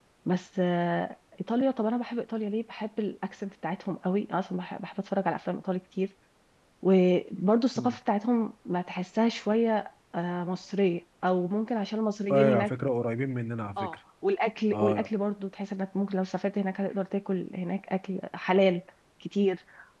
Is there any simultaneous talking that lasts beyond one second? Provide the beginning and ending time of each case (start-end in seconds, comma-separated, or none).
none